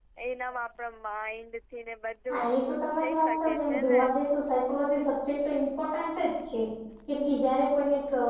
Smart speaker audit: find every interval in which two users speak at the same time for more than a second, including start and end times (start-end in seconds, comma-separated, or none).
2.3-4.0